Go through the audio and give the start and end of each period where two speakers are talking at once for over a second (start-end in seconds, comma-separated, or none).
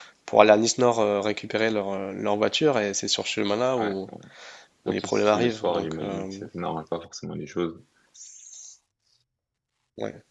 4.9-6.2